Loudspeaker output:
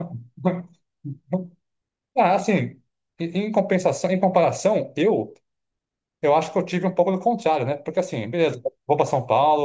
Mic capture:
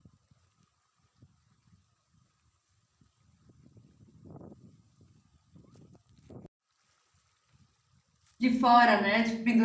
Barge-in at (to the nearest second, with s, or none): 8 s